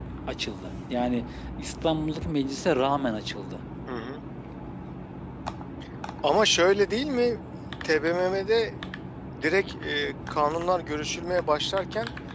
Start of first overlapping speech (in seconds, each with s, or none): none